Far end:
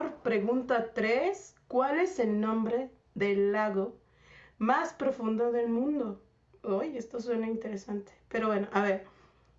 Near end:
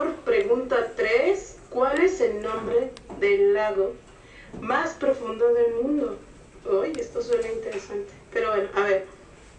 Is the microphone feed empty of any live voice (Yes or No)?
Yes